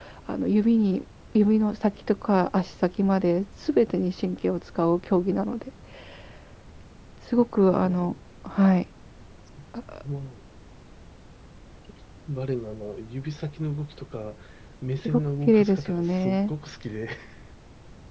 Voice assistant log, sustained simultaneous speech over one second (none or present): present